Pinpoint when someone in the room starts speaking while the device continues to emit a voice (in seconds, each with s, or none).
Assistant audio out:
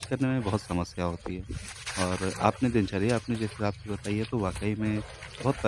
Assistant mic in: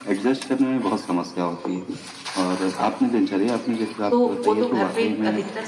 4.1 s